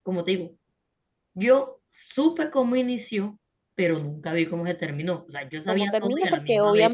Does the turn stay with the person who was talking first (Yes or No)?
No